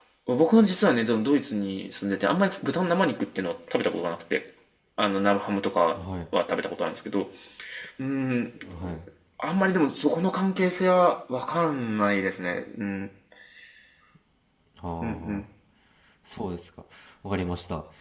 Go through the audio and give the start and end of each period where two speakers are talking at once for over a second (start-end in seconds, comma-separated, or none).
none